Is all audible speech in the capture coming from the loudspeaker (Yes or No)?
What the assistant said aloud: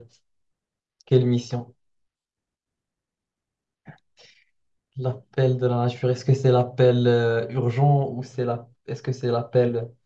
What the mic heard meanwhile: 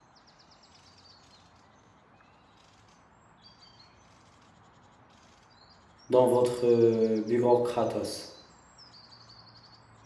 No